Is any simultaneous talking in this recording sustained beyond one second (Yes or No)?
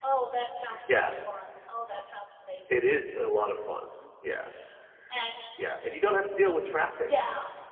No